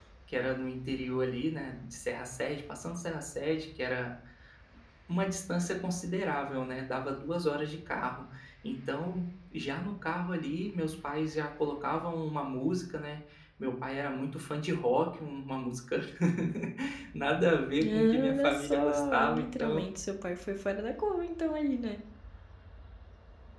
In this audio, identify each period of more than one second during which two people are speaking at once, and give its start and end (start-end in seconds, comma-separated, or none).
17.8-19.8